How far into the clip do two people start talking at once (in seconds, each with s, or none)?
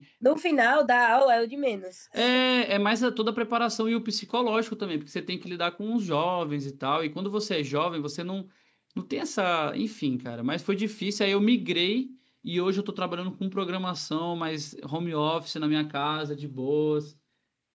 none